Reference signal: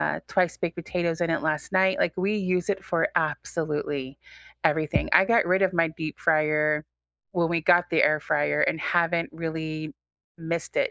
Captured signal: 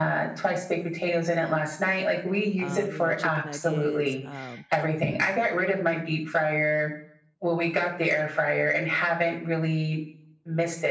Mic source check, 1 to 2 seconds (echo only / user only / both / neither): echo only